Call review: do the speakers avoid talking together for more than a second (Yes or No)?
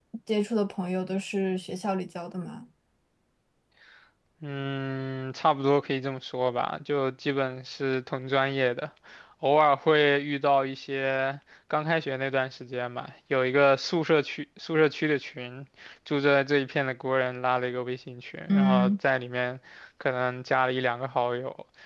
Yes